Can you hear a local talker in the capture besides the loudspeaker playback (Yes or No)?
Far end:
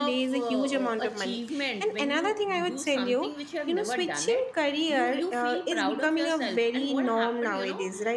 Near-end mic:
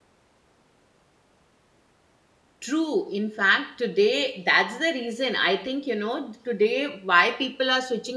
Yes